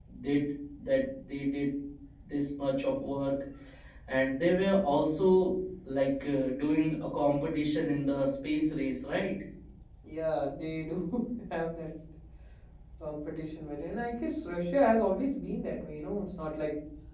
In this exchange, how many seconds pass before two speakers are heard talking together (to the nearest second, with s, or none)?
none